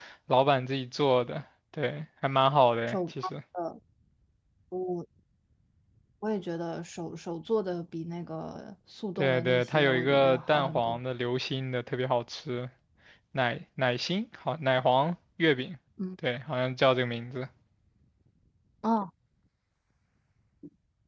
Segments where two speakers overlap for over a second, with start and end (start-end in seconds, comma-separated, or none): 9.2-11.0